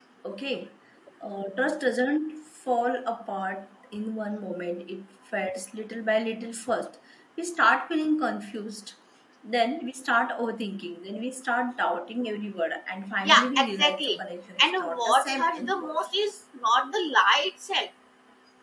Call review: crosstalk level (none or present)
present